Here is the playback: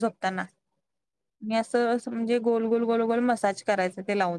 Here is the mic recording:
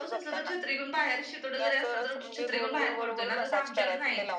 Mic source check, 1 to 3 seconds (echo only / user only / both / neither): both